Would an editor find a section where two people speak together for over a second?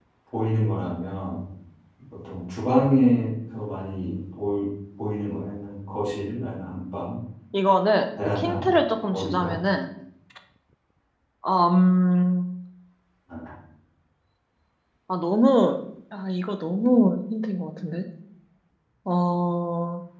No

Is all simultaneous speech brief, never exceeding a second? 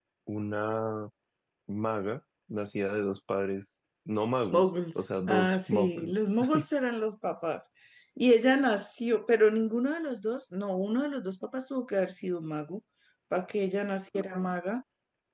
No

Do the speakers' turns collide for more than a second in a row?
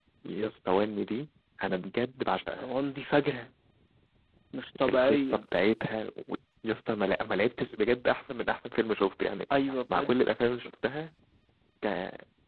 No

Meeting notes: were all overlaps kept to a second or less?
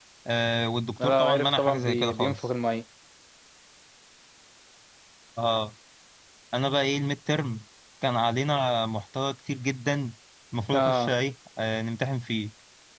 No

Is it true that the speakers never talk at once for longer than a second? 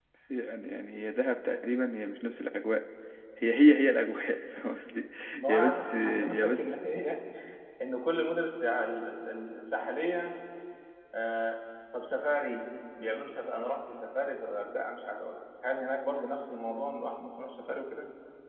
No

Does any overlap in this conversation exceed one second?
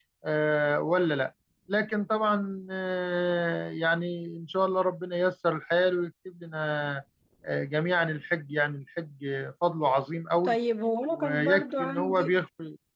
Yes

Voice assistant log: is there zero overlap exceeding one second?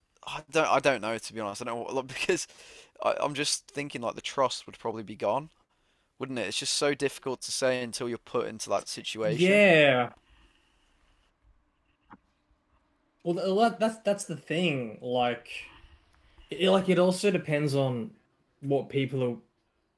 Yes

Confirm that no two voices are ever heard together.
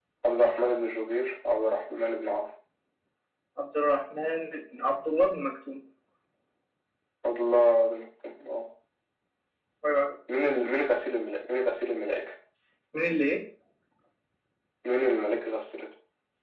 Yes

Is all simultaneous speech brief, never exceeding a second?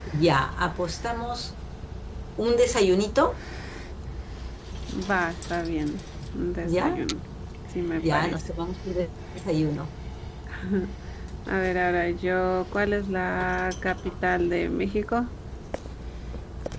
Yes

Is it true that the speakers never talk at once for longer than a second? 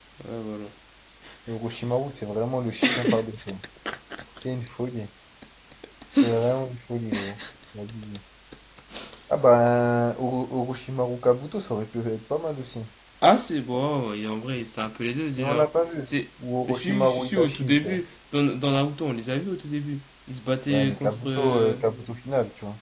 No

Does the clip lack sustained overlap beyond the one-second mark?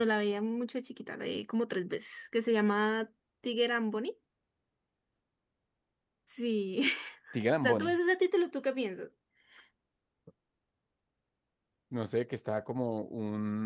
Yes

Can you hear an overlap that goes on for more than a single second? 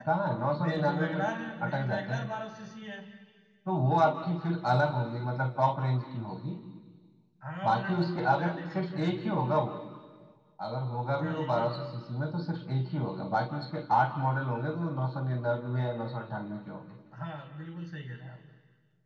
Yes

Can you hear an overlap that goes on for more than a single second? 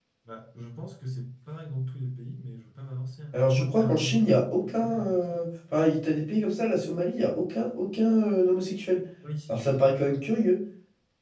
Yes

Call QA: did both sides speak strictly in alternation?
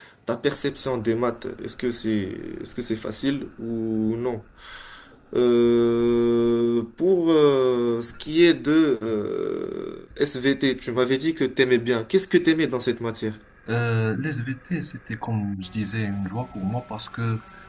Yes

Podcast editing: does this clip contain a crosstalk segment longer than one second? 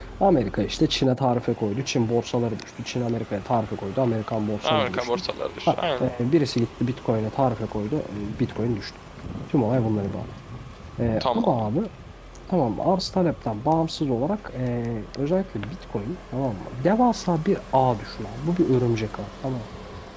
No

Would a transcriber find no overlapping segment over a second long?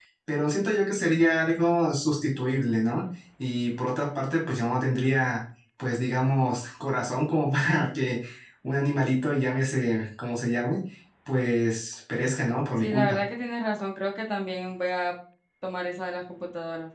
Yes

